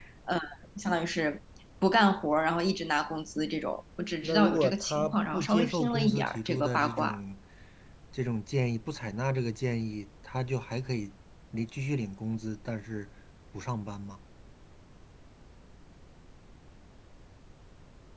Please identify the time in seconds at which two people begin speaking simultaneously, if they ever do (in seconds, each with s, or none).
4.2 s